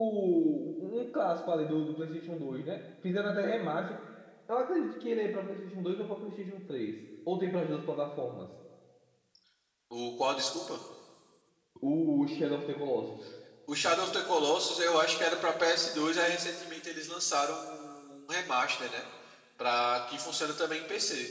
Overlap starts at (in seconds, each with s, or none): none